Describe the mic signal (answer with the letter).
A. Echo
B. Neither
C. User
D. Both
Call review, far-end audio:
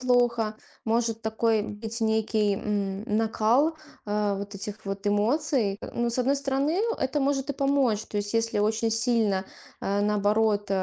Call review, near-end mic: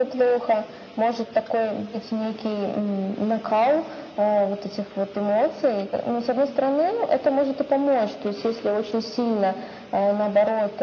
A